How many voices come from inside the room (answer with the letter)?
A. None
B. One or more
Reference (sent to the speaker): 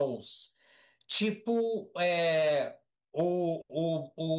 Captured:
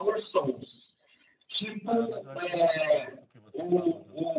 B